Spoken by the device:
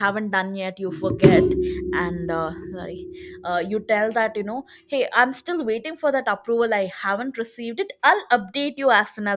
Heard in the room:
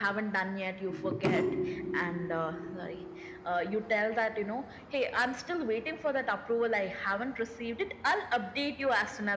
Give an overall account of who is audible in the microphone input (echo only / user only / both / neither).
echo only